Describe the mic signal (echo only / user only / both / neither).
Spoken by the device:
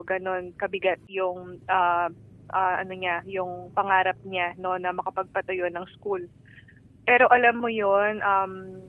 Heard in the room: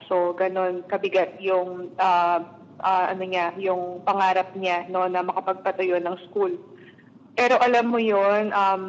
echo only